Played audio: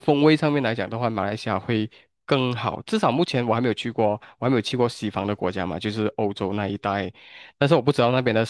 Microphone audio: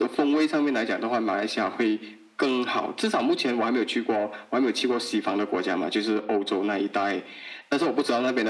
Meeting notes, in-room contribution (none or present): none